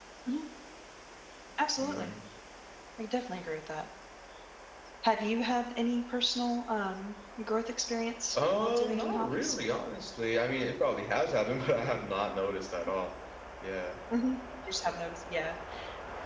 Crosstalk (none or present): present